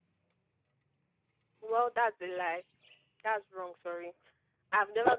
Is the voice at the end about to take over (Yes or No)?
Yes